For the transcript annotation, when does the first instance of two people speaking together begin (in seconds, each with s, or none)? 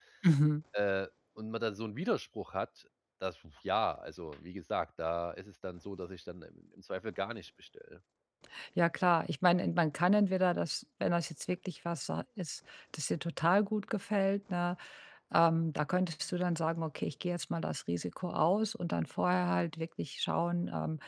none